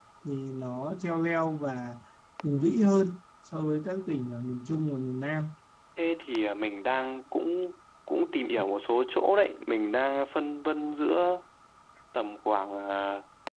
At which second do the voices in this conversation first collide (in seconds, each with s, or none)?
none